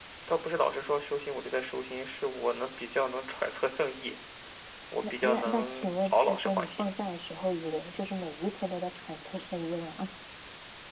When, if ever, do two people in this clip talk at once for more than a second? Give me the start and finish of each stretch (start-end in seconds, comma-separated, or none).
5.2-6.9